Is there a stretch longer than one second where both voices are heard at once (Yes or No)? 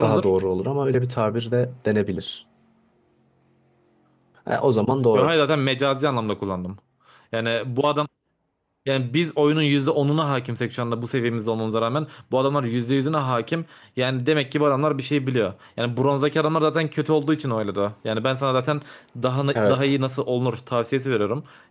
No